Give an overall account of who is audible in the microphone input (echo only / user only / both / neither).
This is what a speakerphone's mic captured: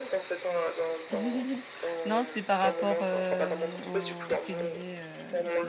both